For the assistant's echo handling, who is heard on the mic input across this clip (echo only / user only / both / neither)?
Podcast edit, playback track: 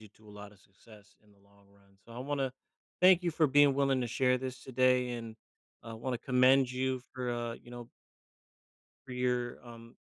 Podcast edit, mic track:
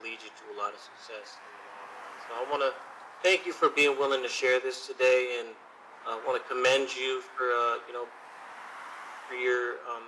echo only